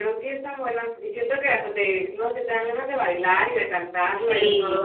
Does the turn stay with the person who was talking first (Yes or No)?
No